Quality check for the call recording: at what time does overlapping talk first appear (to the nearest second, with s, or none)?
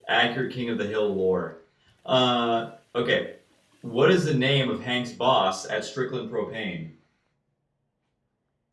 none